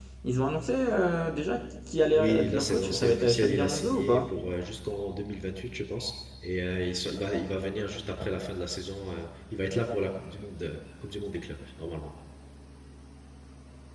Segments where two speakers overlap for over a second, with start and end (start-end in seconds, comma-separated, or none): 2.1-4.4